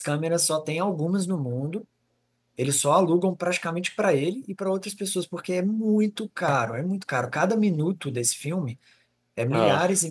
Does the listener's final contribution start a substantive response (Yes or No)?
No